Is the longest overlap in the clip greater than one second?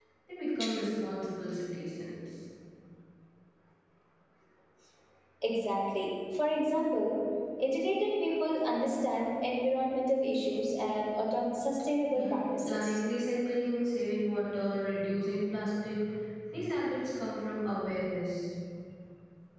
No

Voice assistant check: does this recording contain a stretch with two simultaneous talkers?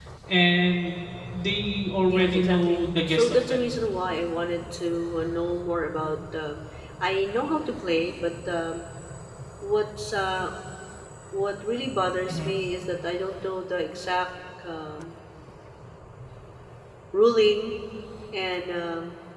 Yes, from 2.0 s

